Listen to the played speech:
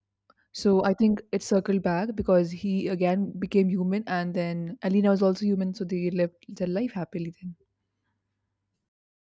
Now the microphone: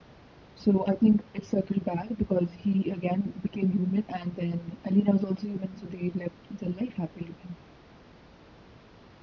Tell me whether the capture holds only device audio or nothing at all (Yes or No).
Yes